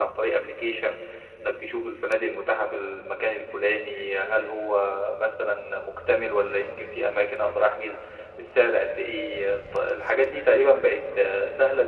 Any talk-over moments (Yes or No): No